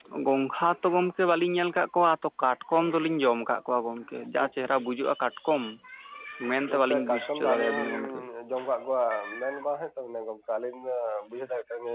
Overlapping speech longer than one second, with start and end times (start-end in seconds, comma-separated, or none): 6.7-8.2